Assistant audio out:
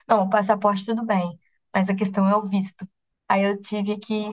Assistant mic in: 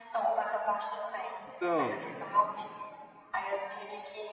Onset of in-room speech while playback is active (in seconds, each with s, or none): 1.4 s